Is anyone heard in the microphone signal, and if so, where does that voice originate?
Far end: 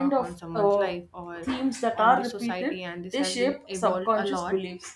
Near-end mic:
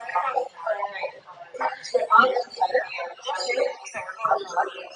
echo only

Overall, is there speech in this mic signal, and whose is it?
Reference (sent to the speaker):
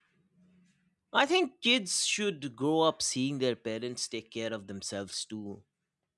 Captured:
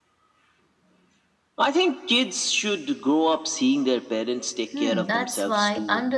both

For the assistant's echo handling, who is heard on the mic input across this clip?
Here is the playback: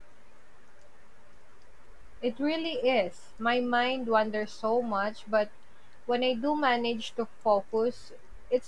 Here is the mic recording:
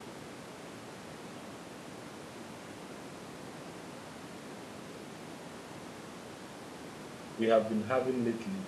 user only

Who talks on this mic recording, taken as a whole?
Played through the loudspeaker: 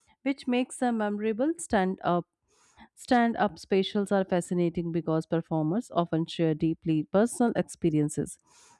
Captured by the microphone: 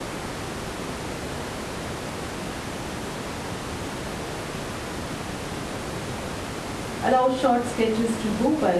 user only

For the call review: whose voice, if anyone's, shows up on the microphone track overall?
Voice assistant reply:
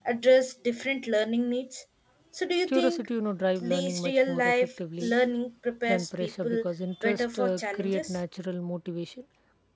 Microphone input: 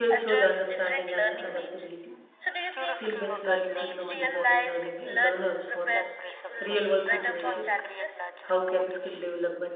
both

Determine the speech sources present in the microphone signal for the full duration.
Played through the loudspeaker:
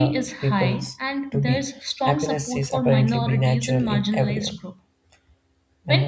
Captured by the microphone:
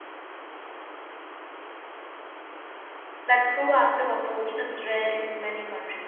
user only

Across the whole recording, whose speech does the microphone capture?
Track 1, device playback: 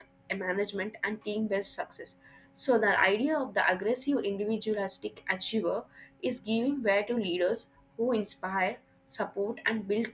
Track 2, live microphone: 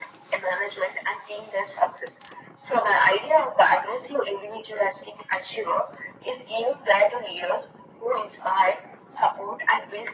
echo only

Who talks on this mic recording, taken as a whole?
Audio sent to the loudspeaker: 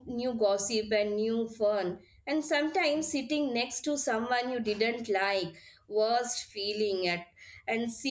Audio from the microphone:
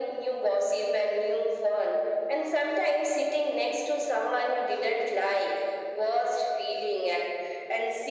echo only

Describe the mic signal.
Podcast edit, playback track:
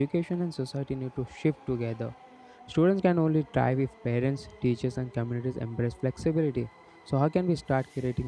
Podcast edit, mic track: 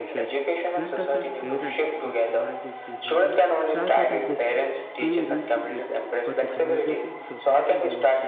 both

